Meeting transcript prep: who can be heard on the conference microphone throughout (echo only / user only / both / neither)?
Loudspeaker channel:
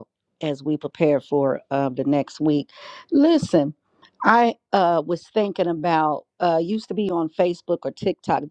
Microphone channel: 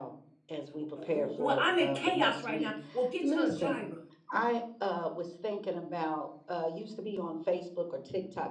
both